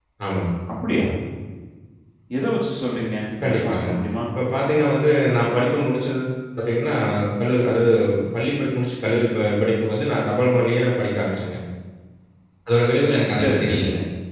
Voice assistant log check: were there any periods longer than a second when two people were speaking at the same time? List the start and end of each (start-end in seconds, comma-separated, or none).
none